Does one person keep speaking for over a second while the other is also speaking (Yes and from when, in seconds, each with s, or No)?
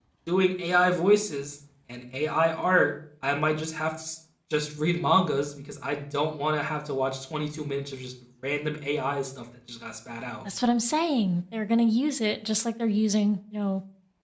No